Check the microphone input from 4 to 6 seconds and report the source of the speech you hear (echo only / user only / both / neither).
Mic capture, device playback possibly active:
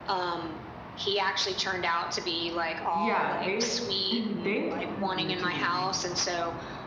both